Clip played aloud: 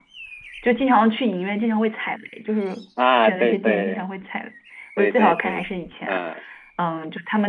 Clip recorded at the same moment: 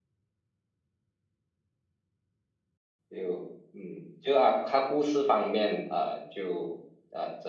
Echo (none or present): none